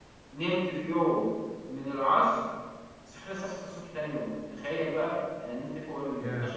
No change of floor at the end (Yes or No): Yes